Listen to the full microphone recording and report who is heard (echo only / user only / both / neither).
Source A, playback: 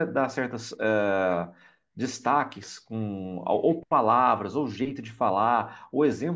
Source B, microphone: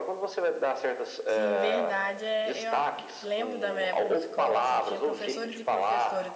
both